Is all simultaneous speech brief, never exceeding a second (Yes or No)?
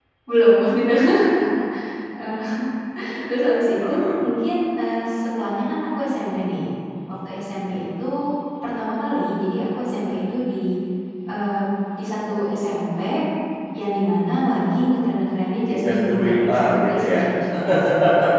No